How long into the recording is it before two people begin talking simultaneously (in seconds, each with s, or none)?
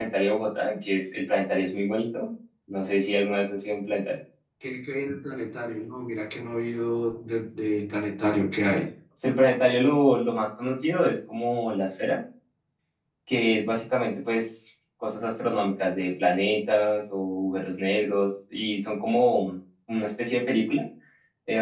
none